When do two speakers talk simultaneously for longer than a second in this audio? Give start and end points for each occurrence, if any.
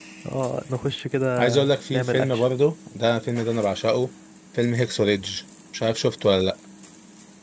none

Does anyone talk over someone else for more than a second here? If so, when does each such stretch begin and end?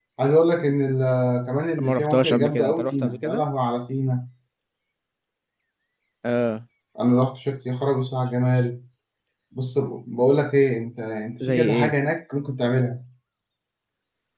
1.8-3.4

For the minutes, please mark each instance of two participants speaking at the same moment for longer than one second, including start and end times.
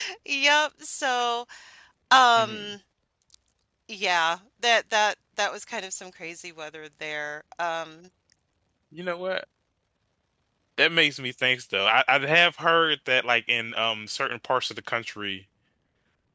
none

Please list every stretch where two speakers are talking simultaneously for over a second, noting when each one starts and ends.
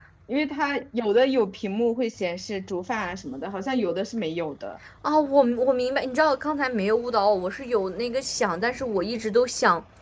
none

